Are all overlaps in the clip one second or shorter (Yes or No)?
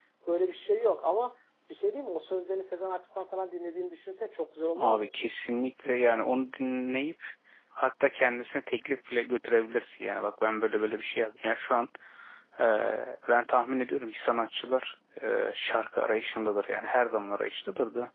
Yes